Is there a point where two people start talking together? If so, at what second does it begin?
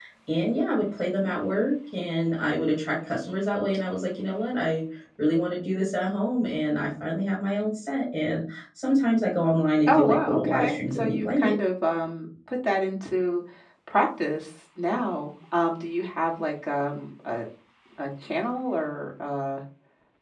9.9 s

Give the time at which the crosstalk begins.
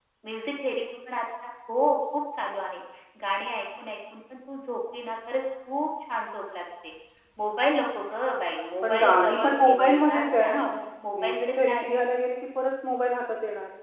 8.8 s

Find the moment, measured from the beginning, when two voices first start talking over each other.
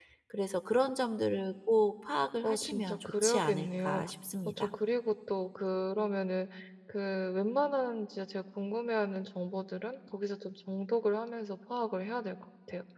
2.4 s

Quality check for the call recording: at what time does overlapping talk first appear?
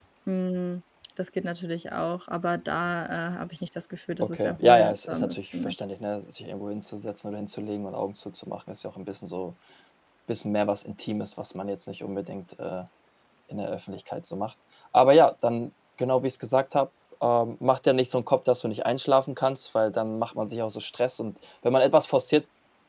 4.2 s

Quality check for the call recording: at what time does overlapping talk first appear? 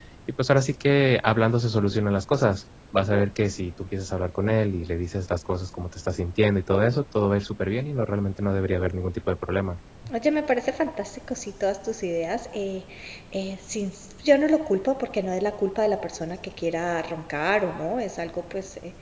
none

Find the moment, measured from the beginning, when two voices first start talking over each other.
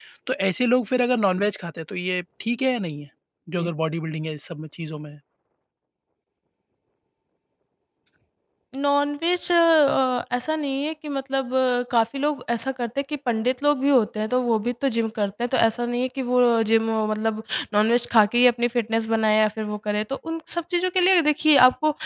none

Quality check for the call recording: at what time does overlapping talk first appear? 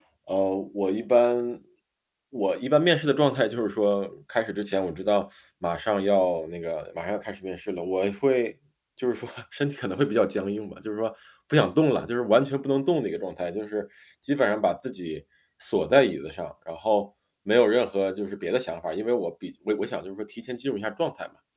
none

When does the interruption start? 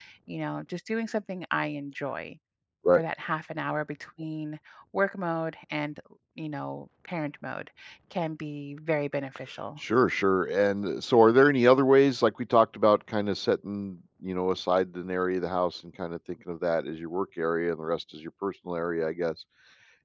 none

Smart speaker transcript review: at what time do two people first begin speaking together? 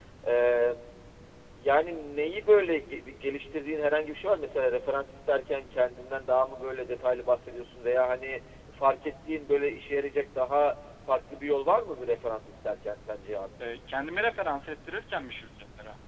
none

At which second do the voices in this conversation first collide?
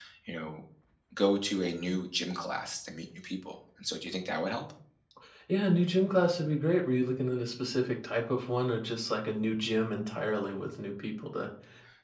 none

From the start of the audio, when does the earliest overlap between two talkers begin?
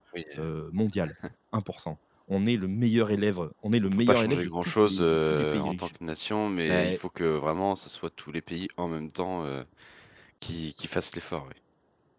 3.8 s

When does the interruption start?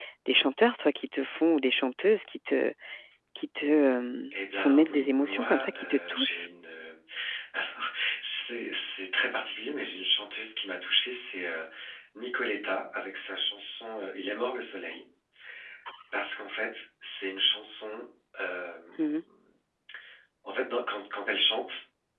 4.3 s

